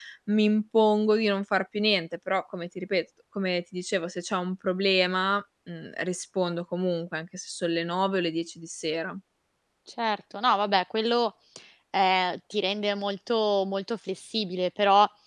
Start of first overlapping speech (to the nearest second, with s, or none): none